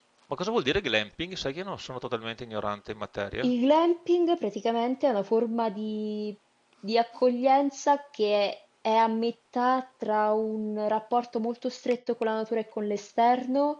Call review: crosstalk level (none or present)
none